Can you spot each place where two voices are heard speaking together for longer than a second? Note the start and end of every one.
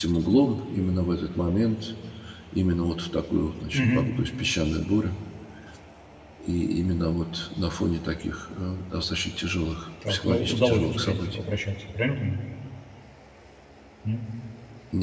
10.1-11.4

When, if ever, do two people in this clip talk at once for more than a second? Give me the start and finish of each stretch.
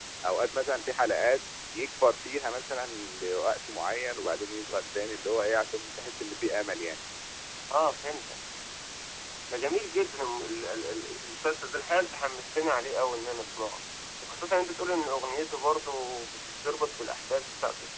none

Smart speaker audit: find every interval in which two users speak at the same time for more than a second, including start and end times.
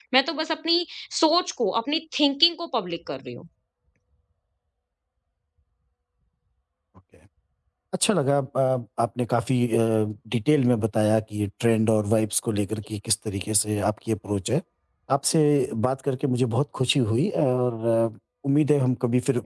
none

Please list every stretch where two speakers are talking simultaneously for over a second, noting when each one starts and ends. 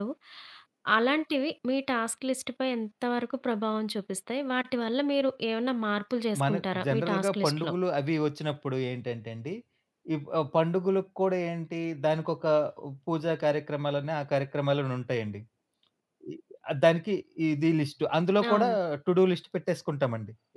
6.4-7.7

